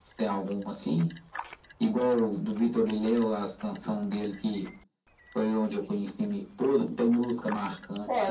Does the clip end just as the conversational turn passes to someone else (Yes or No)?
Yes